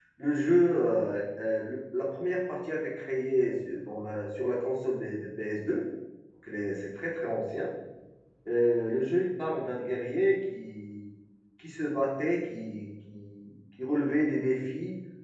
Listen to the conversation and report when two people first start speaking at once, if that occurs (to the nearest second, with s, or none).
none